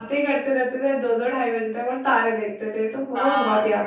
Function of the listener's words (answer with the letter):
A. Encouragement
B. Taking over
B